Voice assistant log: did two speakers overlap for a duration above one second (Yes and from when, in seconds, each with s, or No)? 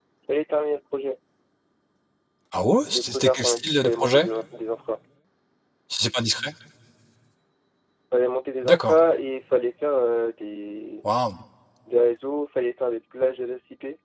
Yes, from 3.0 s